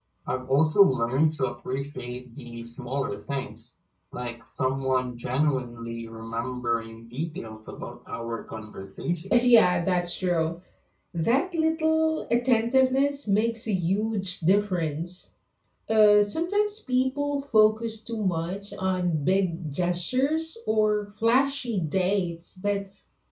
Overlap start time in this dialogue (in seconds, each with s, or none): none